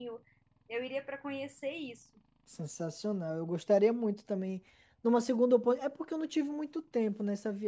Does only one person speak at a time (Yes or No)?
Yes